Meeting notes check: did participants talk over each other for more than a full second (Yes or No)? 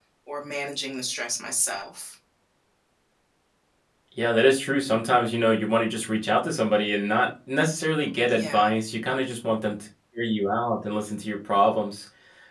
No